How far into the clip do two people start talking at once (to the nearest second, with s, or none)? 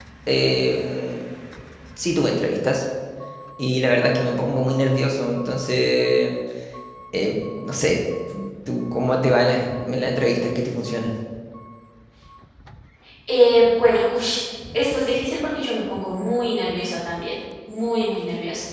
none